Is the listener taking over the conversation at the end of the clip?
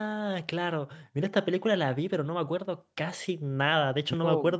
No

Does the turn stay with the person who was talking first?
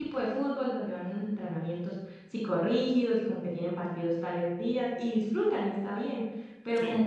Yes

